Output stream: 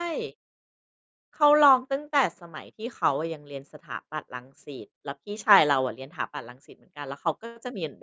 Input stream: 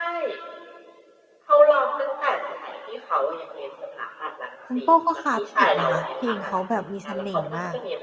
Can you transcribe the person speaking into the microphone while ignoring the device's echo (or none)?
คุณโป้ก็คลาสสิกนะคะ เพลงเขาแบบมีเสน่ห์มาก